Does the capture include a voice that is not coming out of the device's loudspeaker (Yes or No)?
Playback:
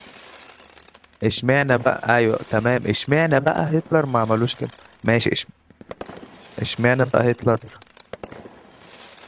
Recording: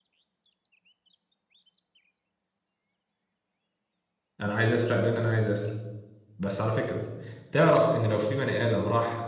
Yes